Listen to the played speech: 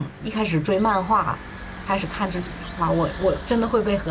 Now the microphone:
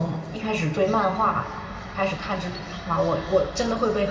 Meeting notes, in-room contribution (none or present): none